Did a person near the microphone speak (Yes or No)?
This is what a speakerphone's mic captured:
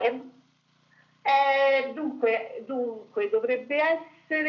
No